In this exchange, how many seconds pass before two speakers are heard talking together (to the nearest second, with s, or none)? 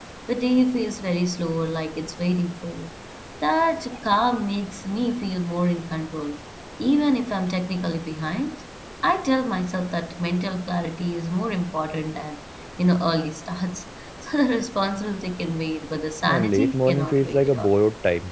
16 s